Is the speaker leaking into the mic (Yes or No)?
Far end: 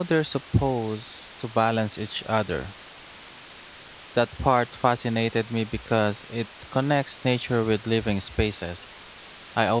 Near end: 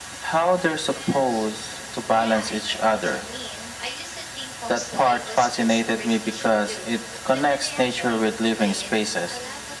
Yes